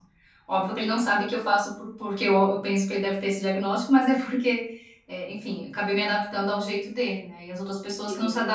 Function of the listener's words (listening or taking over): listening